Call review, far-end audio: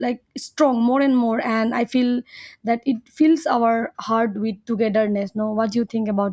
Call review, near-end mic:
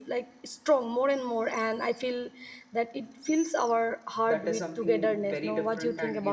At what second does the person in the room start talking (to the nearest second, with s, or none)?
4 s